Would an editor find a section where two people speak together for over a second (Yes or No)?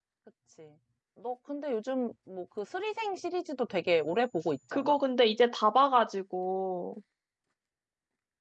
No